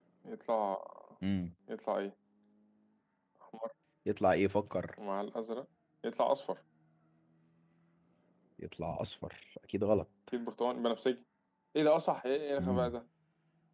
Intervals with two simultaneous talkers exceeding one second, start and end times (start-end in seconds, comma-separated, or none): none